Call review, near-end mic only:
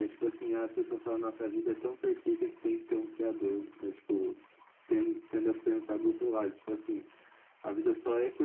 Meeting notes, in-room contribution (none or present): none